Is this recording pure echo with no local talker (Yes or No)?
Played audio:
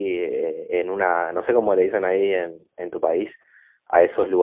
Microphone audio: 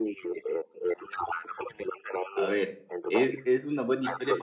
No